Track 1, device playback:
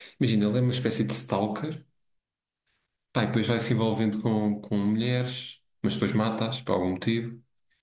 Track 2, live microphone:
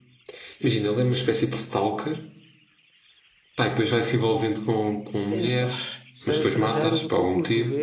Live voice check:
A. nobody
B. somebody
B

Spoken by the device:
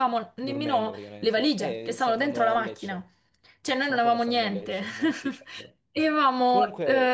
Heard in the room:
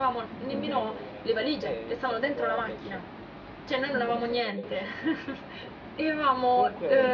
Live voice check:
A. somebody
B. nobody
B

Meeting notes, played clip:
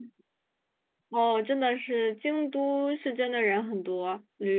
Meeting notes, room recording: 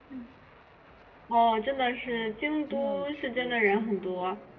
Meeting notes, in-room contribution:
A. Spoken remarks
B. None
A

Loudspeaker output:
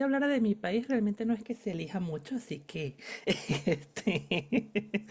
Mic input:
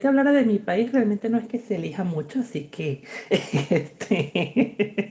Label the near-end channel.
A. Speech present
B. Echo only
B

